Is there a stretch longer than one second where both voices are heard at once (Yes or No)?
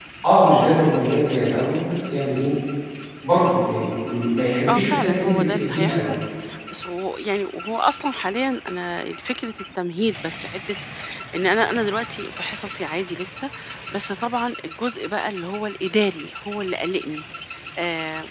Yes